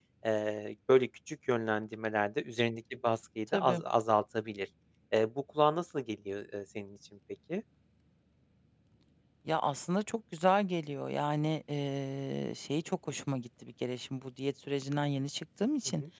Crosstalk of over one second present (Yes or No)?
No